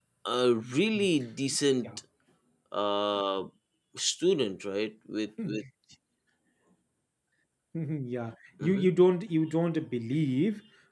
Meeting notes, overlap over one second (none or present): none